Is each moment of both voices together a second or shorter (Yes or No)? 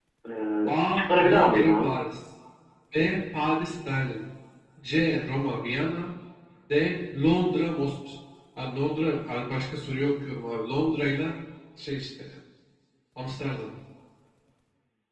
No